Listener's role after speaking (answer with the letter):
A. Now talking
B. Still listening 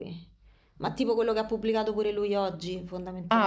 A